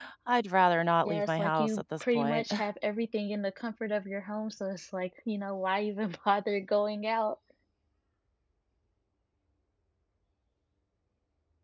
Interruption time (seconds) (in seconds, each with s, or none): 1.1 s